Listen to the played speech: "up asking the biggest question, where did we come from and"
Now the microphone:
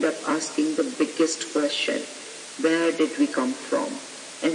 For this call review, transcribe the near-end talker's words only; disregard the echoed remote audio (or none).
none